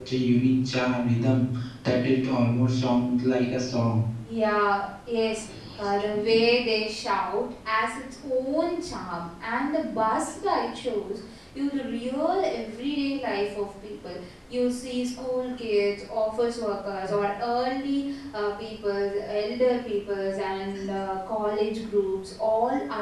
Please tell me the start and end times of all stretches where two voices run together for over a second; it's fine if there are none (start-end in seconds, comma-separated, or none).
none